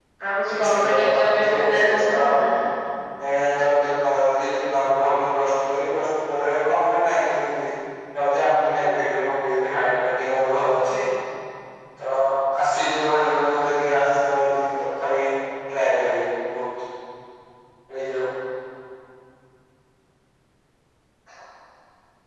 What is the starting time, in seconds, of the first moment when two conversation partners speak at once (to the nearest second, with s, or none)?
1 s